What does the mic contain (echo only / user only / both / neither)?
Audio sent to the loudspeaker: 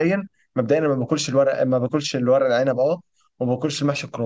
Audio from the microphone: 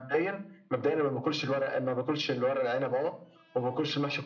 echo only